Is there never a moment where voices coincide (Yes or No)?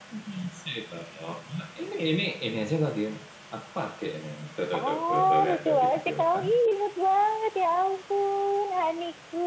No